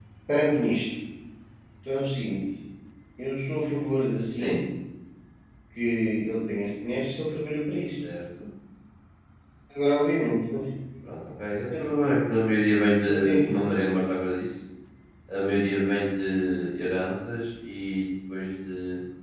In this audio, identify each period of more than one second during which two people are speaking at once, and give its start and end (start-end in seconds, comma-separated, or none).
none